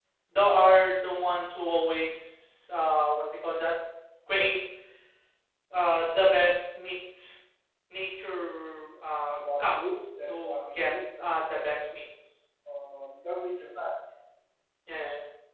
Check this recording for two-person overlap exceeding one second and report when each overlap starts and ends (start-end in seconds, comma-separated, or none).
9.3-10.9